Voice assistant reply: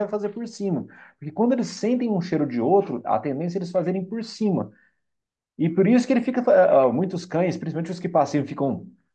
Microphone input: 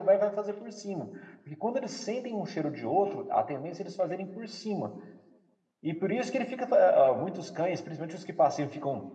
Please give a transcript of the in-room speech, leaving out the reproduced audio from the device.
none

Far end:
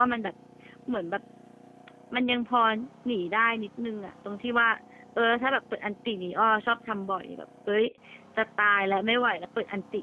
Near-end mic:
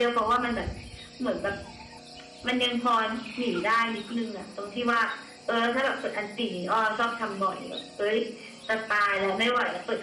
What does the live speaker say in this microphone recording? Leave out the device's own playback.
none

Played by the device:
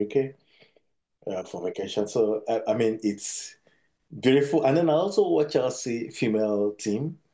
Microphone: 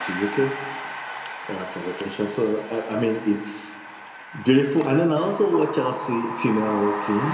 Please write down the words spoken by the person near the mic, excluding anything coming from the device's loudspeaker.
none

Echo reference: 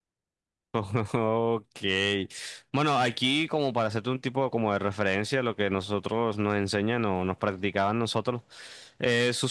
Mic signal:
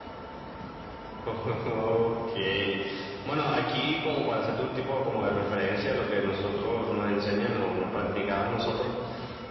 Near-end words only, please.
none

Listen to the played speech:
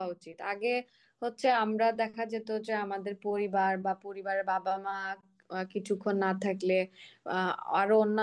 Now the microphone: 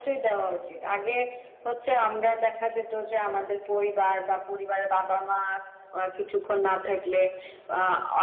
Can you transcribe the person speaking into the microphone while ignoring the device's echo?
none

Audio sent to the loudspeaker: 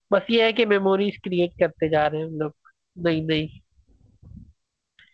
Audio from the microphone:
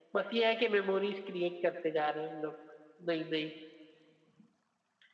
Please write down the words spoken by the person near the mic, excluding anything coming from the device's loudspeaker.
none

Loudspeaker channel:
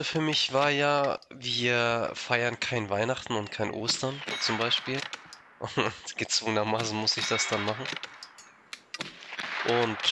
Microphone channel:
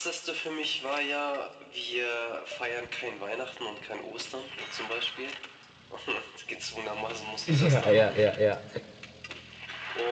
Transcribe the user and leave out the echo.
Ja, ja, ja, ja.

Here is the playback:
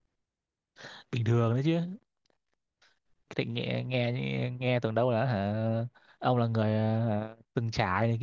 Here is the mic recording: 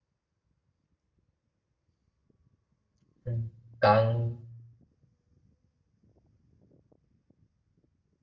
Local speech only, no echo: Ừ. còn

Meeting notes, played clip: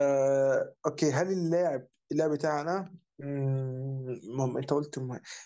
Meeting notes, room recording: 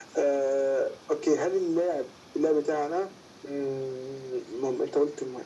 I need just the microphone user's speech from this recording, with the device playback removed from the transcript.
none

